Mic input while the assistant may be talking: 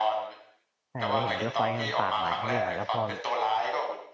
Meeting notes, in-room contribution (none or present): present